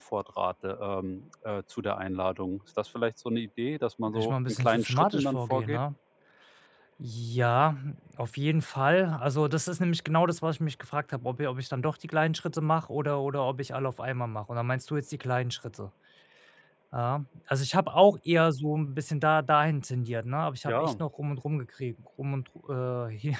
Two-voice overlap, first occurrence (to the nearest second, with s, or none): 4 s